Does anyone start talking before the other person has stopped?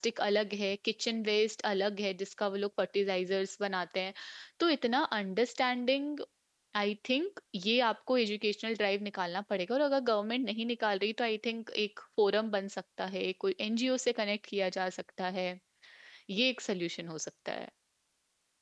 No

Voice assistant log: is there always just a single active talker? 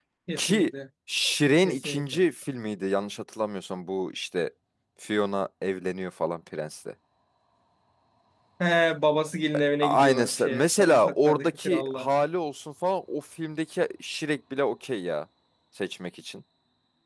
No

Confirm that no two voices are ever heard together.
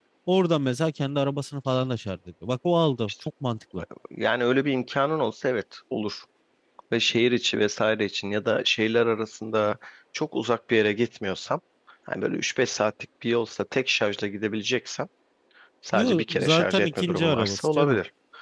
No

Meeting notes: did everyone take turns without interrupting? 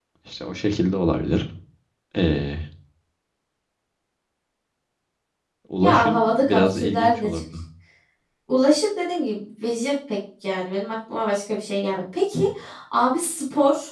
No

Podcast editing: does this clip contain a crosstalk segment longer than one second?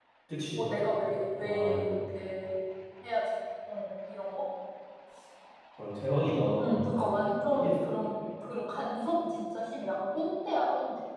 No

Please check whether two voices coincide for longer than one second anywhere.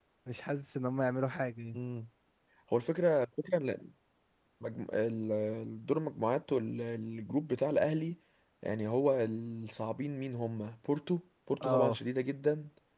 No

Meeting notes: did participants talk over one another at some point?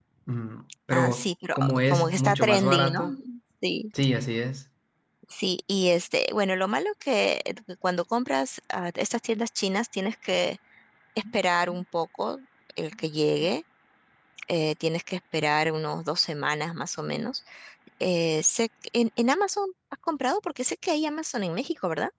Yes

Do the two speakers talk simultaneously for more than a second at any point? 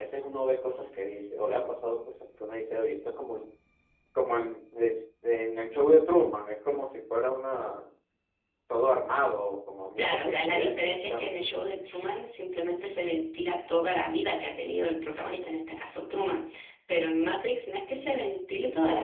Yes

